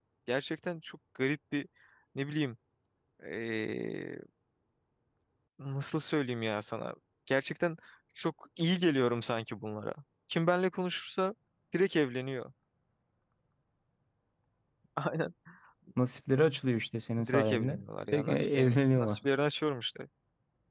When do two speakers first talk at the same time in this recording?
17 s

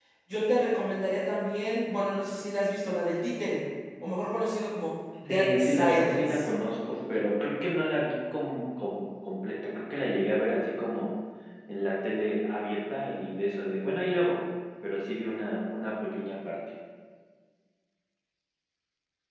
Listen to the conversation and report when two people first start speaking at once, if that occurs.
5 s

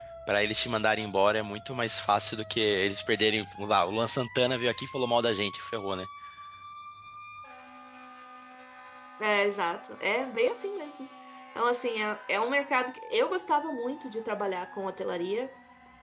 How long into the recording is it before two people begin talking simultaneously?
none

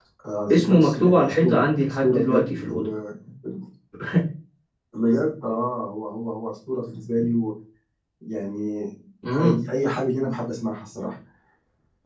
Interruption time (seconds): 1 s

